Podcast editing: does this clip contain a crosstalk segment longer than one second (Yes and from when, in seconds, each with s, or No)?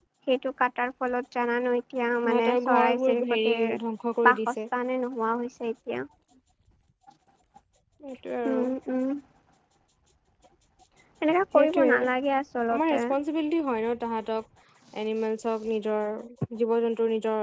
Yes, from 2.2 s